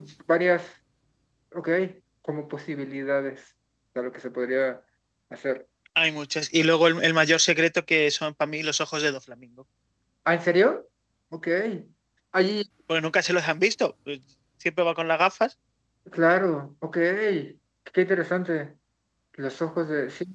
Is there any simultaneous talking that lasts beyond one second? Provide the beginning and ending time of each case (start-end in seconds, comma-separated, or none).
none